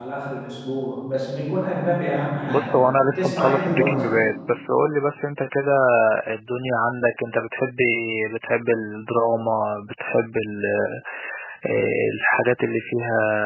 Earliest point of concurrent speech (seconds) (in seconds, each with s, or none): 2.5 s